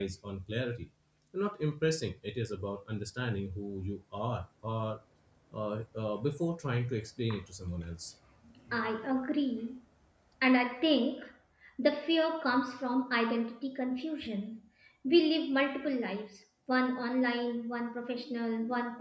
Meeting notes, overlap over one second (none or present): none